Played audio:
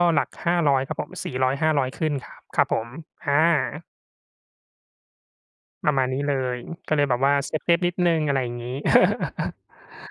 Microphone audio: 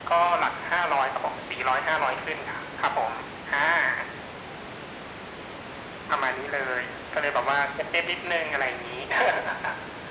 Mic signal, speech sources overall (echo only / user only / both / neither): echo only